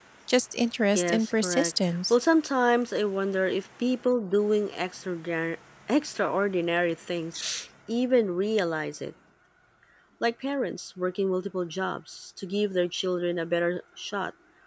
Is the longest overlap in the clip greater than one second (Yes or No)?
Yes